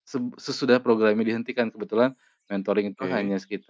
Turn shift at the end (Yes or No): No